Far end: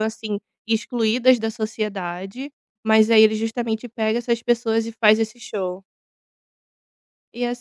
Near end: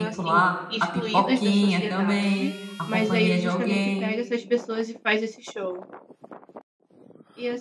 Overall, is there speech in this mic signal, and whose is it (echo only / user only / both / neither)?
both